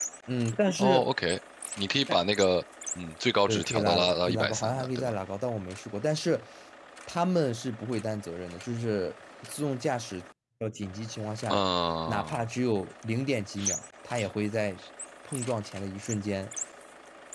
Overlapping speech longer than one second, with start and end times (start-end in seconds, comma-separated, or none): 3.5-5.1